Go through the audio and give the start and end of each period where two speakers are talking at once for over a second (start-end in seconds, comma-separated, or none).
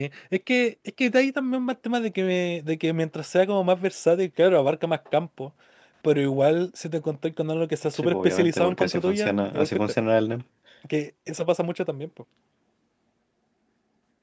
8.0-9.7